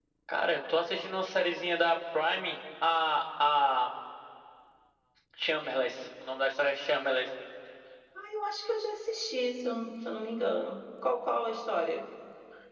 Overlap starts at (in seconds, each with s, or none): none